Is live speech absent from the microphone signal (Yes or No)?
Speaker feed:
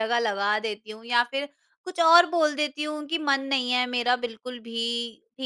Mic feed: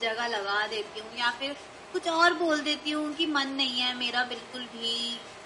Yes